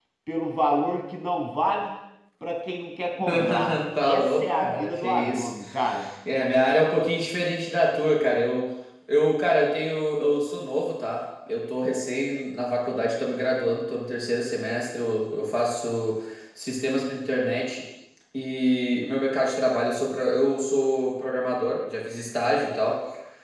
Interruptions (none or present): present